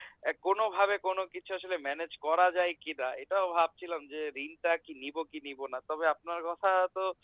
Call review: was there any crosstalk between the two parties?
No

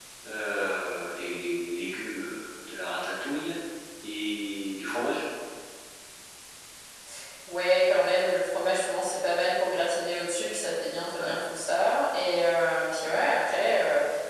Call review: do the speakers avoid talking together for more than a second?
Yes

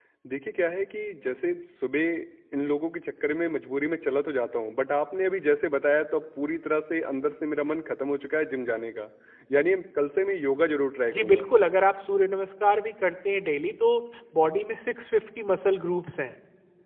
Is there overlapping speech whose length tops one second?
No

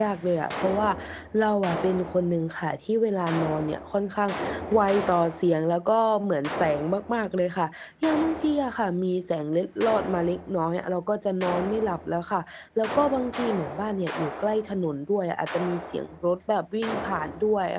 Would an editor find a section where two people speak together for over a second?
No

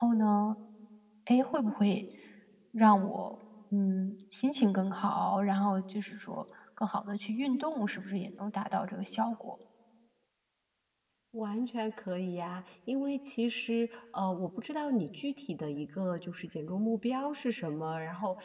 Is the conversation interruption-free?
Yes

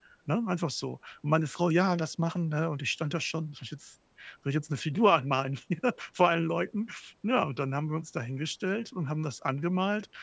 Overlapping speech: No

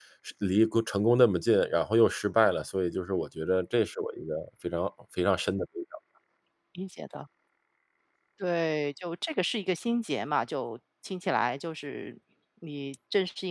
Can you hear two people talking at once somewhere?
No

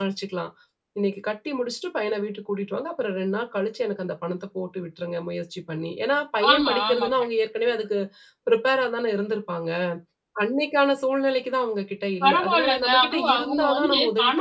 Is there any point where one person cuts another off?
Yes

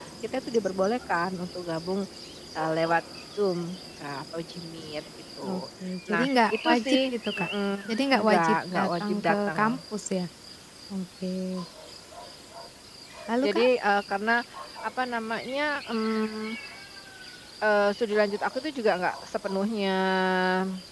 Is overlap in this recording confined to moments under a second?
No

